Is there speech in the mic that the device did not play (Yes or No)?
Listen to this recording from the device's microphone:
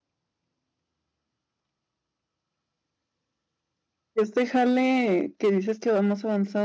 Yes